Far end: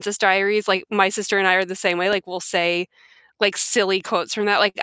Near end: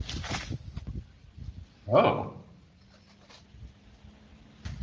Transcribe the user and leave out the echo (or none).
Oh.